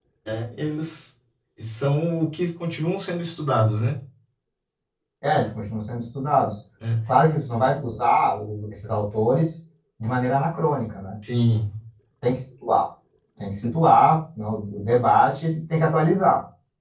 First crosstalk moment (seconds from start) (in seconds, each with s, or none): none